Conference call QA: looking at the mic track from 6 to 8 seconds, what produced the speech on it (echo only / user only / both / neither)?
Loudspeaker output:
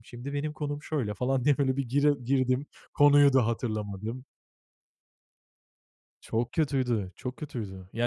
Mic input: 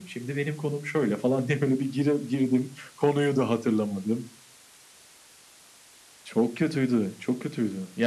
echo only